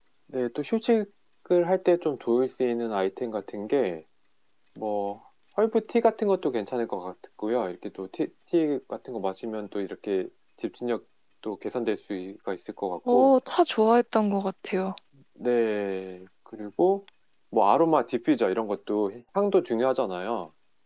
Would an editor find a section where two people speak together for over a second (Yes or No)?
No